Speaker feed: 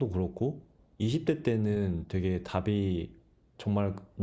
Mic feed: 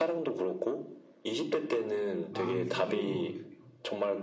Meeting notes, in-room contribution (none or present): present